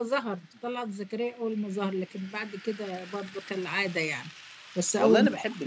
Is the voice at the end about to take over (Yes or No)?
Yes